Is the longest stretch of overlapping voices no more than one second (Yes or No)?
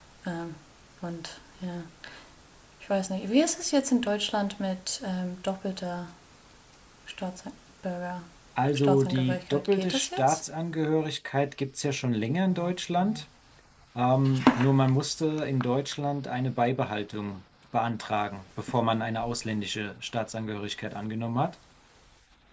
No